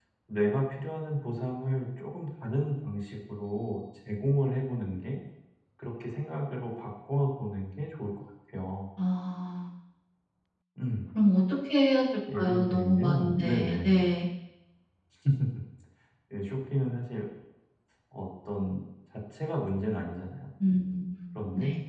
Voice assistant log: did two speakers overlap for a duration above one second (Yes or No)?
Yes